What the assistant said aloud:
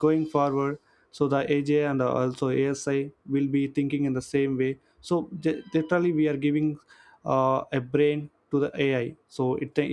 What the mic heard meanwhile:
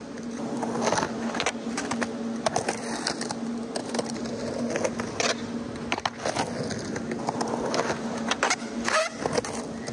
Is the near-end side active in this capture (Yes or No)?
No